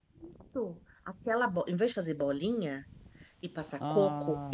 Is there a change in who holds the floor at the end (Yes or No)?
No